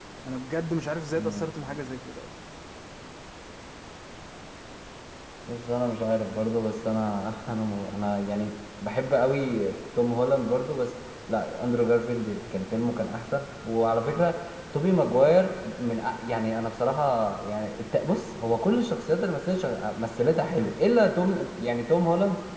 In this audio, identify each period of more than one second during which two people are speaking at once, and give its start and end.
none

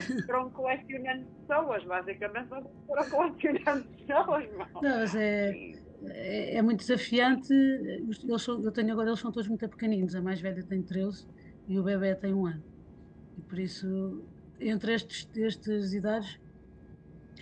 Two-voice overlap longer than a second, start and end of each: none

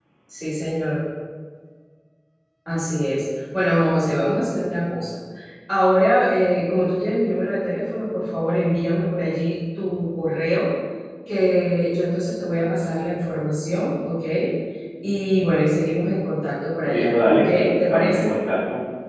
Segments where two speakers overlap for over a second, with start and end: 16.8-18.3

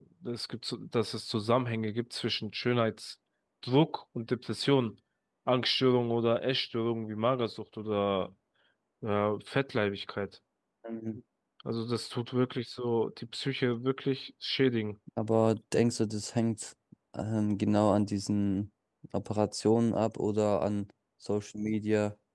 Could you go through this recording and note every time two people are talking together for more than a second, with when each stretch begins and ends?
none

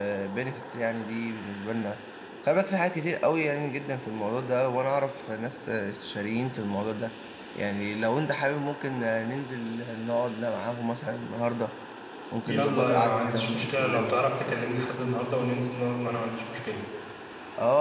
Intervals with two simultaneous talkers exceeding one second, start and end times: 12.5-14.2

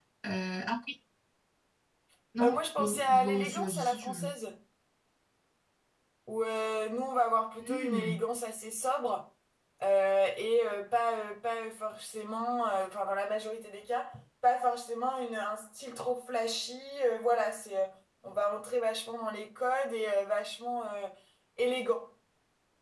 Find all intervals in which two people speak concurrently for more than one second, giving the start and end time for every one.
2.4-4.3

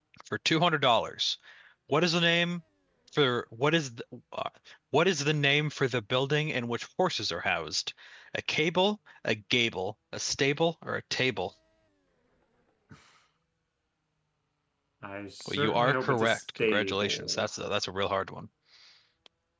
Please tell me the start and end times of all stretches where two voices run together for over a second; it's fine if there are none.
15.4-17.5

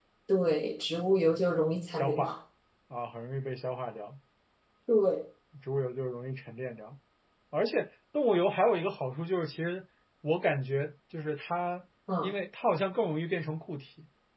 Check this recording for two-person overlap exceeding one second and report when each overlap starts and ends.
none

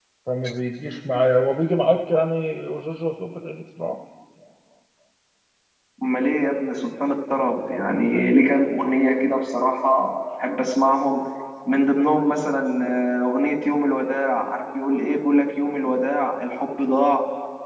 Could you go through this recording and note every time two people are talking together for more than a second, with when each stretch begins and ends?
none

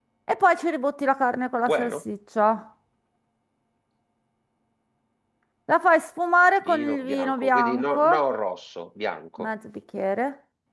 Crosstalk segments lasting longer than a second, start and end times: 6.6-8.0

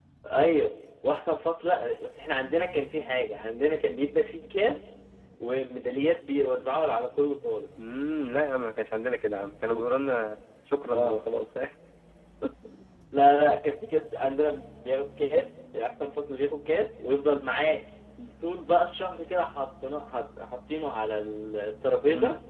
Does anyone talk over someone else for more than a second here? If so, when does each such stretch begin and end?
none

